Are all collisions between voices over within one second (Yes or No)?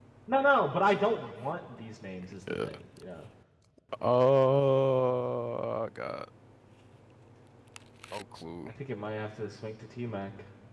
Yes